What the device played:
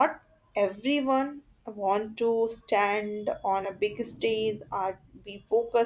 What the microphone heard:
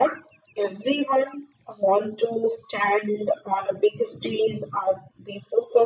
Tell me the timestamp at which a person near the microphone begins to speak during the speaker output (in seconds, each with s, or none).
none